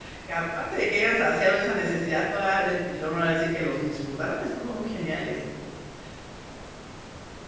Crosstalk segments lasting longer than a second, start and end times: none

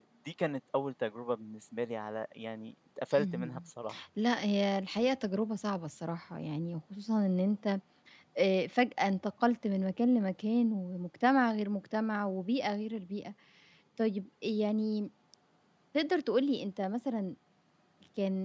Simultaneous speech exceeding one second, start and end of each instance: none

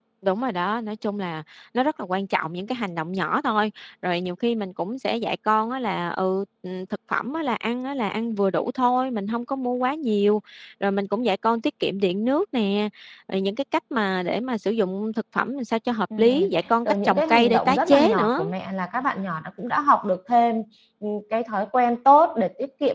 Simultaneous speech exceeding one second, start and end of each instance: 16.2-18.4

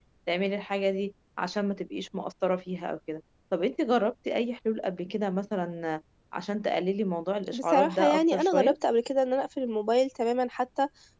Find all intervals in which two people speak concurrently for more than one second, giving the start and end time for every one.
7.5-8.7

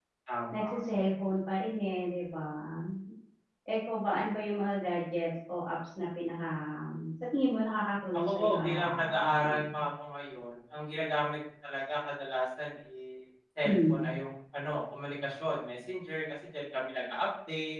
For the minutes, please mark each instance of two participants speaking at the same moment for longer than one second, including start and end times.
8.1-9.8

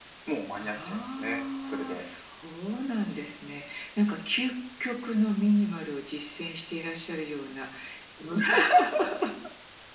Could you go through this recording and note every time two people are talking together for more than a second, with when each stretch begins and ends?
0.6-2.0

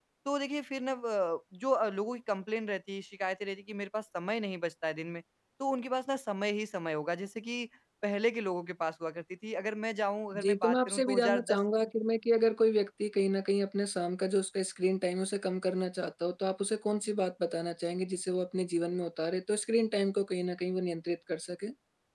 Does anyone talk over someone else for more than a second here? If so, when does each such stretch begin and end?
10.4-11.6

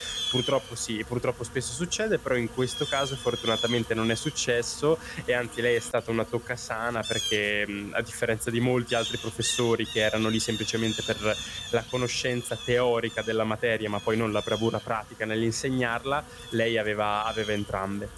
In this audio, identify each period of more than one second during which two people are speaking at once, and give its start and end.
none

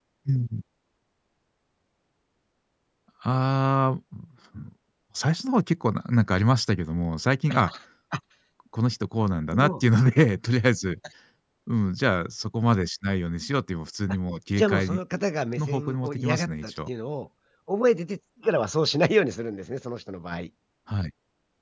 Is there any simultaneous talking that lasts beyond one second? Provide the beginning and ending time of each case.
15.6-16.9

